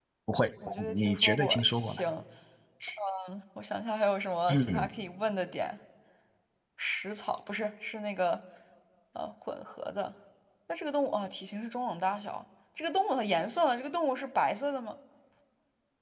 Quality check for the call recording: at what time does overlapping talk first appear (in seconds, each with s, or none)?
0.7 s